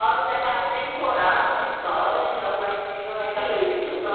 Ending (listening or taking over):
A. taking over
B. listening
A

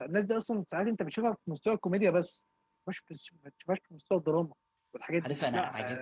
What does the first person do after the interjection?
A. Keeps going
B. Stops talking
B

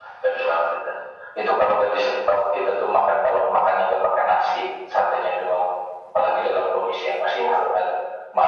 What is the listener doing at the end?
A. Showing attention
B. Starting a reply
A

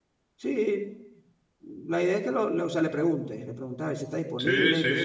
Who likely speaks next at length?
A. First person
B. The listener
B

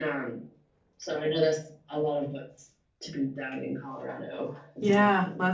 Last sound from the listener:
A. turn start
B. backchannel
A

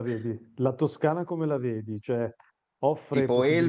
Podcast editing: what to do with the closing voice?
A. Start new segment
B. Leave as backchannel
A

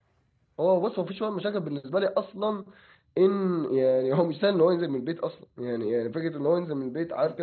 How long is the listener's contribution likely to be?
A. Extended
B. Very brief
B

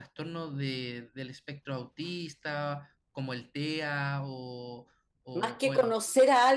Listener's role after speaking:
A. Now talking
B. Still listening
A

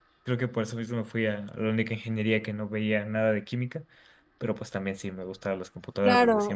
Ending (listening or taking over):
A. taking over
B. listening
A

